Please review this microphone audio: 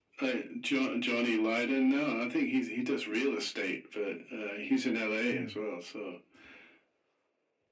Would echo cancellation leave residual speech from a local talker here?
Yes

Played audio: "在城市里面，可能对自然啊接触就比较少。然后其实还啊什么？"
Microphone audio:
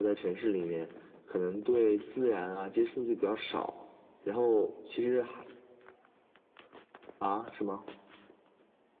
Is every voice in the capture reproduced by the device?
Yes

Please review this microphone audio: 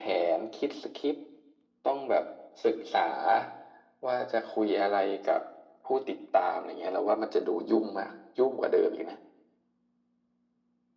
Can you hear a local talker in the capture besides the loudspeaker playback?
No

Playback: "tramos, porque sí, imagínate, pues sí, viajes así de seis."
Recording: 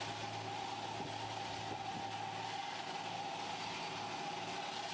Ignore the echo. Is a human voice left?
No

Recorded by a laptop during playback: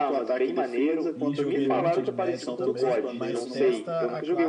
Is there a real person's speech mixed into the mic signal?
Yes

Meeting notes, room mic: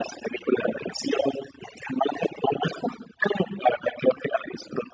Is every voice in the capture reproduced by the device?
Yes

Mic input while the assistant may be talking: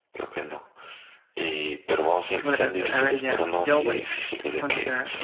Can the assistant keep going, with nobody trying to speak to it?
No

